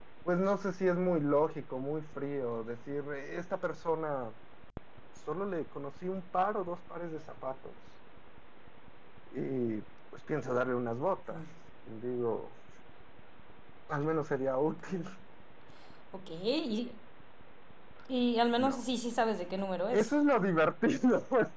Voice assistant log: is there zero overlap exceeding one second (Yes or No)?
Yes